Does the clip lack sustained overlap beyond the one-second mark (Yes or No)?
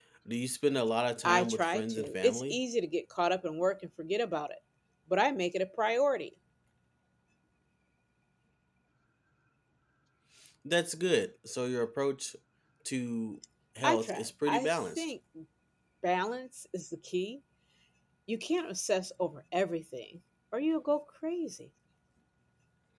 No